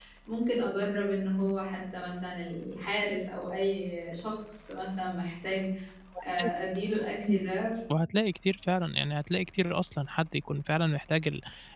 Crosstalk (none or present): none